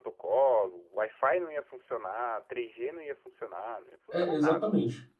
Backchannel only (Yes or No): No